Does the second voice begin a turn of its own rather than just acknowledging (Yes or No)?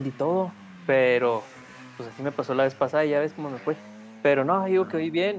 No